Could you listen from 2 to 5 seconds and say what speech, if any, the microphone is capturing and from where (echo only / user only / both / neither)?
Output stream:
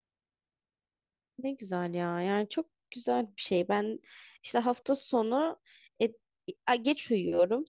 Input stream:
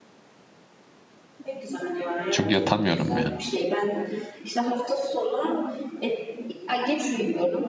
both